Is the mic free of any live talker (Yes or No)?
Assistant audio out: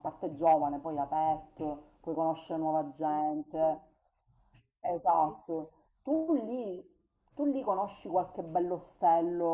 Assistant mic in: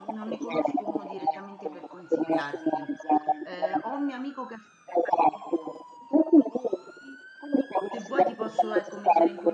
No